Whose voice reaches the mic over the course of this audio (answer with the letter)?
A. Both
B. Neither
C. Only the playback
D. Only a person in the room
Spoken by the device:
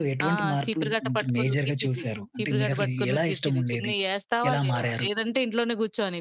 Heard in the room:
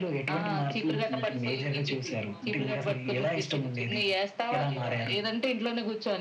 A